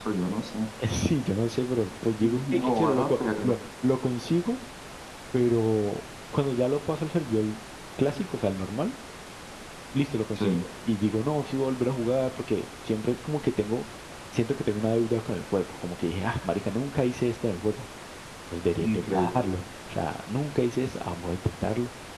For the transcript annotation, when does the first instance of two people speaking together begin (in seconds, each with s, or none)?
2.2 s